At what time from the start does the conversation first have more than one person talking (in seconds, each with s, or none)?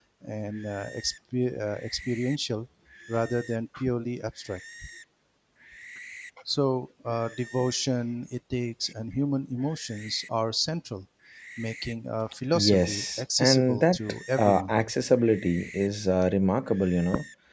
12.5 s